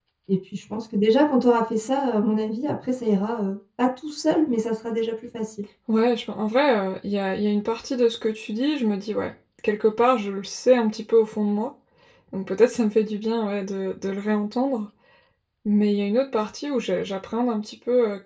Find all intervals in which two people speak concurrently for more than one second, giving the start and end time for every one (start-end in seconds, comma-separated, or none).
none